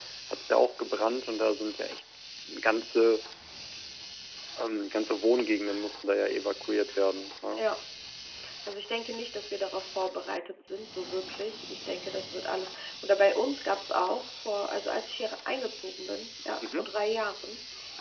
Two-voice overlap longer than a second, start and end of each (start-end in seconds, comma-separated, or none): none